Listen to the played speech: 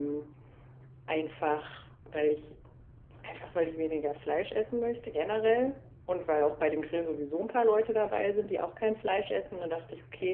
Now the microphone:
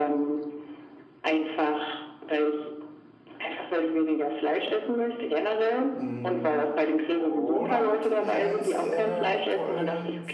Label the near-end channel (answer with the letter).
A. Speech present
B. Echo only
A